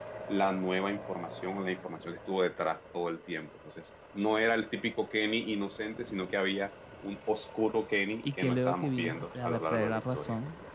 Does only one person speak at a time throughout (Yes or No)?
No